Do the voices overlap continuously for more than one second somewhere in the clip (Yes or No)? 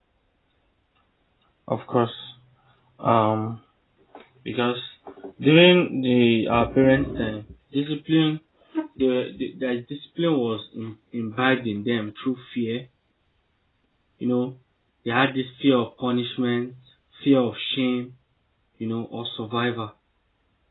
No